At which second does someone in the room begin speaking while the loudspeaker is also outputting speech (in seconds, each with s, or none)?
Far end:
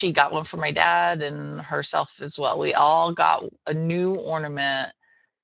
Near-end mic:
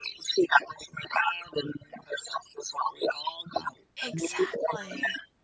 4.0 s